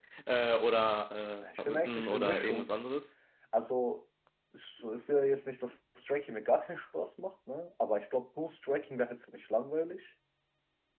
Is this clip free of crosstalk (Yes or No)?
No